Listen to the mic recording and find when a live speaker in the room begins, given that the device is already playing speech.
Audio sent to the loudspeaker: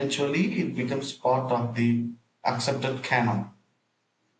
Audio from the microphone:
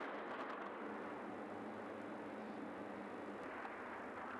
none

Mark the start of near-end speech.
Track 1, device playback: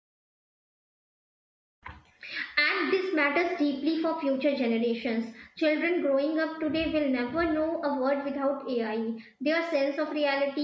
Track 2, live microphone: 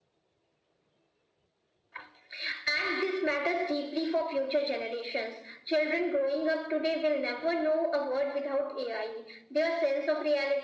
none

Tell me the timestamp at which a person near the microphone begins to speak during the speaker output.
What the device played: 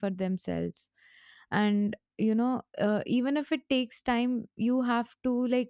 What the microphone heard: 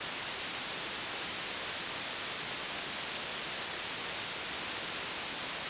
none

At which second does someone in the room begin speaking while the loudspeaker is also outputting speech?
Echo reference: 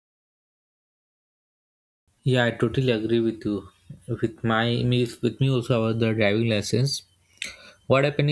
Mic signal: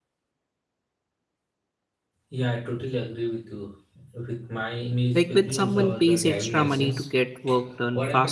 5 s

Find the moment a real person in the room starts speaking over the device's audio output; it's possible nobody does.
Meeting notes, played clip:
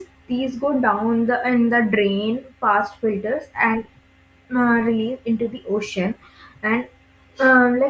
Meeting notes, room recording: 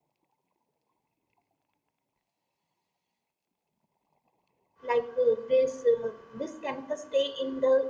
5 s

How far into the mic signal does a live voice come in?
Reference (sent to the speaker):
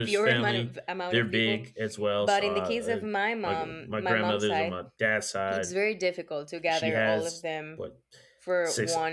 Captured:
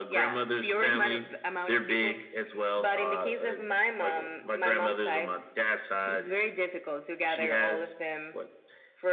none

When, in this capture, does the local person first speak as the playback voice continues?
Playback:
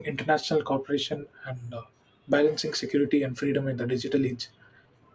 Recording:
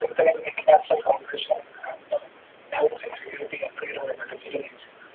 none

